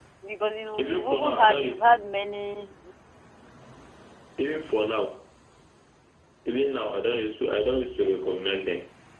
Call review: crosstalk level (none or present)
present